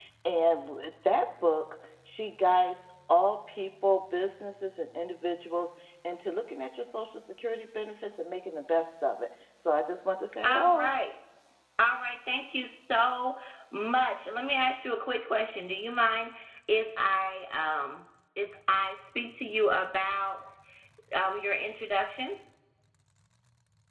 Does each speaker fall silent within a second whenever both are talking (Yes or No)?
Yes